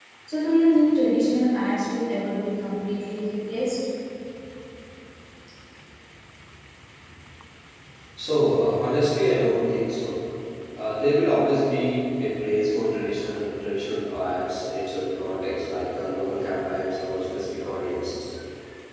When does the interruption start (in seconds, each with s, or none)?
none